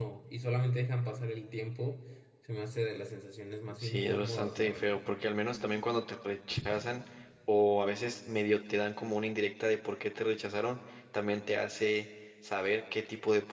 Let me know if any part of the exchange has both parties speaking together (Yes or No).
Yes